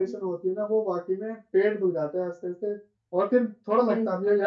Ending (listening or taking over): listening